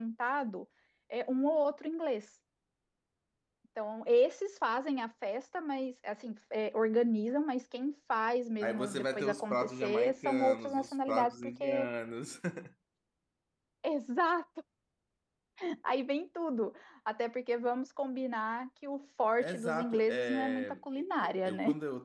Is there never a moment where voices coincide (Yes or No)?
No